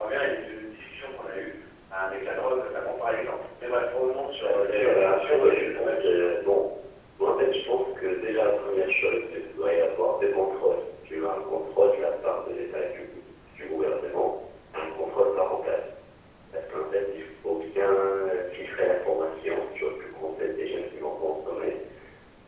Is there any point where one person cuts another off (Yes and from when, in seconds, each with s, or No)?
Yes, from 4.4 s